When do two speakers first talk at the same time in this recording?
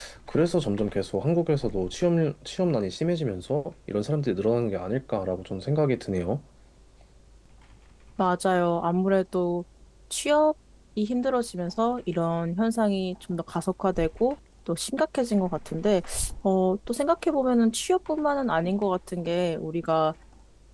none

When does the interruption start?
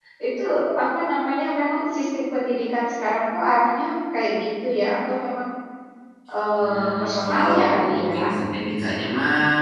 6.6 s

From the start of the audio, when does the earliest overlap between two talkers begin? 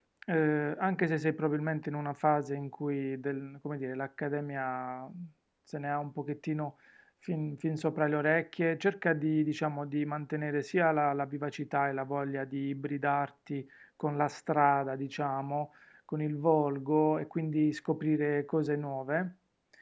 none

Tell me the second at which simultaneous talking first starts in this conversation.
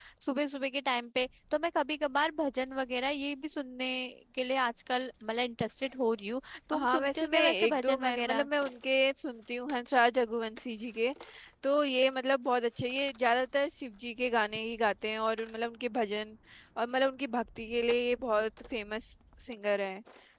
6.7 s

